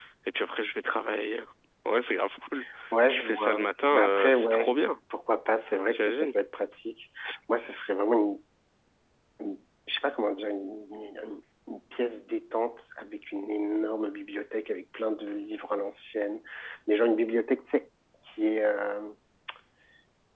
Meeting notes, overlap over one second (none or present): present